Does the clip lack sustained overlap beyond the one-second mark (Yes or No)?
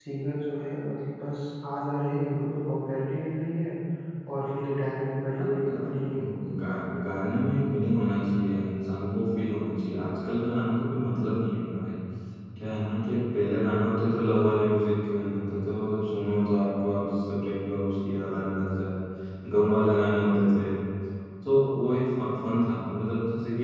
Yes